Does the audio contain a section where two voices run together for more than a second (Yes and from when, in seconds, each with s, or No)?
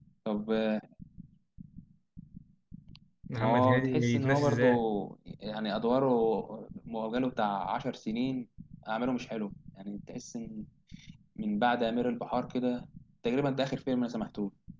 Yes, from 3.4 s